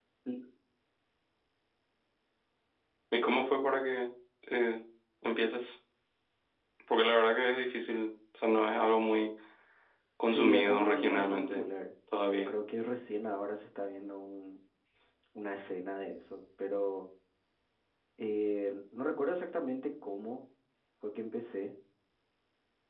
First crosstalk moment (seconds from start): 10.3 s

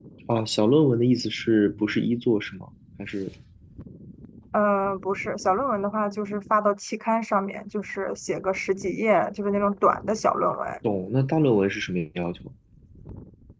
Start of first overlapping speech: none

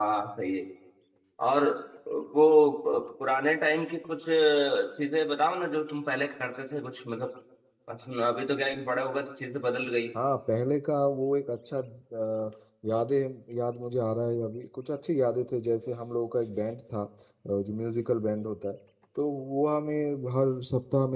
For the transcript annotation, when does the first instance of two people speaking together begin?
none

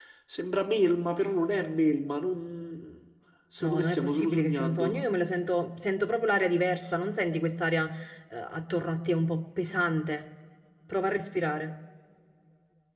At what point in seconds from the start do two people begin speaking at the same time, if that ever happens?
3.6 s

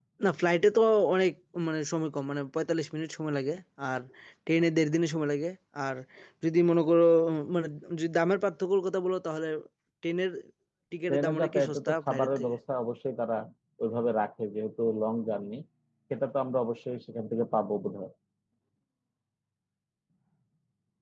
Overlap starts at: 11.1 s

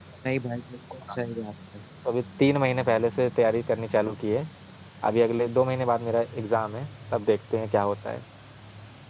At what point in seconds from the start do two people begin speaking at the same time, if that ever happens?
none

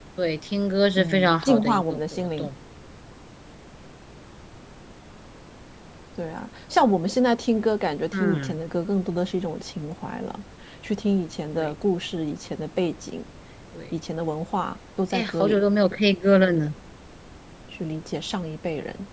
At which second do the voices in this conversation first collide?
1.0 s

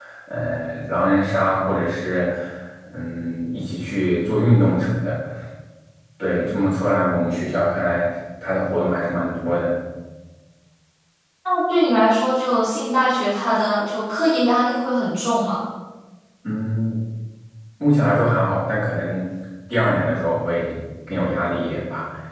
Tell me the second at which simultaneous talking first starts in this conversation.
none

